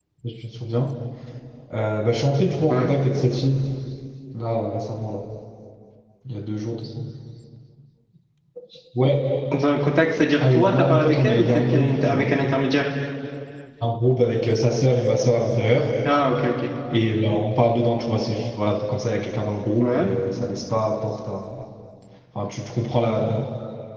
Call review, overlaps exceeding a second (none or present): present